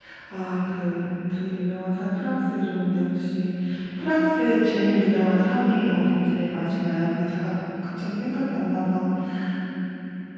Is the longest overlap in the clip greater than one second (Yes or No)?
No